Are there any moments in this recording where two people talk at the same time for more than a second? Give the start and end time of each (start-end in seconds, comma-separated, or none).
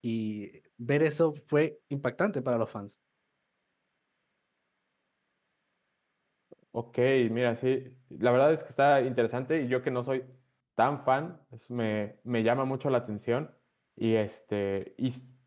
none